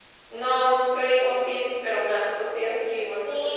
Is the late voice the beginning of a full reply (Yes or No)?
Yes